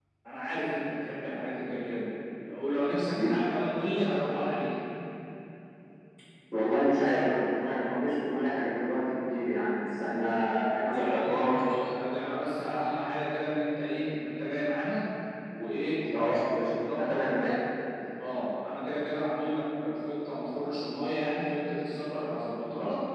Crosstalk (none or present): present